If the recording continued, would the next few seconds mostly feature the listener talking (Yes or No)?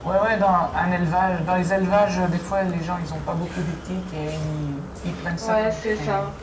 Yes